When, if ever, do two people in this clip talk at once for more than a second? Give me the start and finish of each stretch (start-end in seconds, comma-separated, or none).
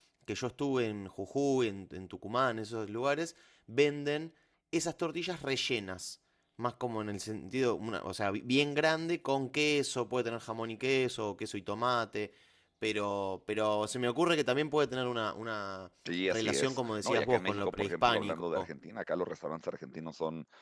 16.2-18.7